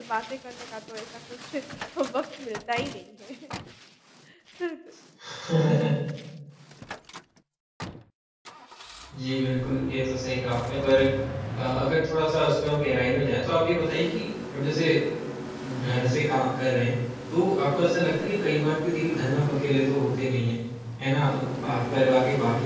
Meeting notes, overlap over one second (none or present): none